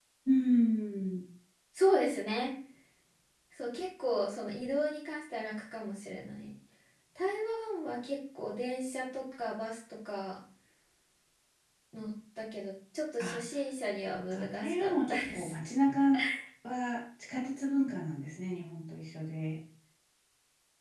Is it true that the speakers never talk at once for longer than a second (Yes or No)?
No